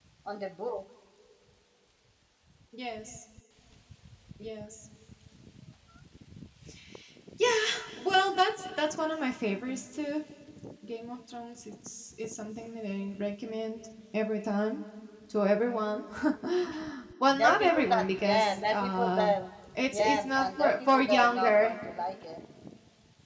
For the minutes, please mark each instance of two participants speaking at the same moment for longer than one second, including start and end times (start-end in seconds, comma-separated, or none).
17.3-19.3, 19.9-21.7